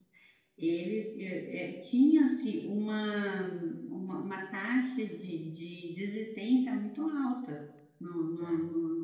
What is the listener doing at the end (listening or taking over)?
listening